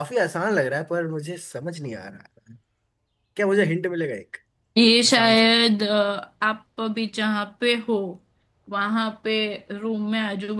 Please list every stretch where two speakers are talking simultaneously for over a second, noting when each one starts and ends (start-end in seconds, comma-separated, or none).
none